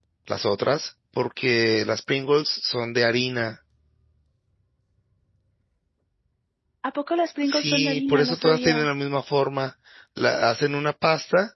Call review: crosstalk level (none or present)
present